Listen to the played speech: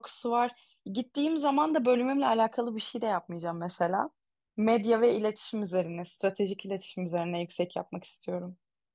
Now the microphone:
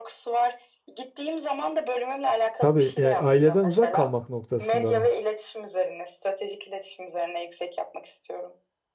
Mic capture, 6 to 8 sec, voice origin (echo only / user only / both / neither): echo only